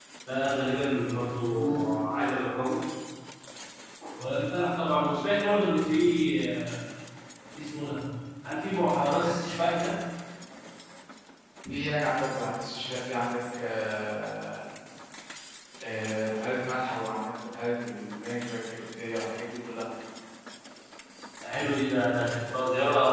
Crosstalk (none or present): none